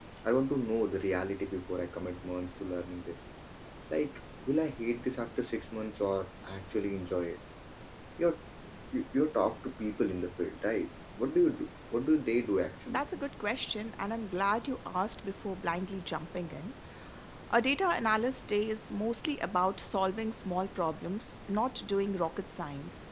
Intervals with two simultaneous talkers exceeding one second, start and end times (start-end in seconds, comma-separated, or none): none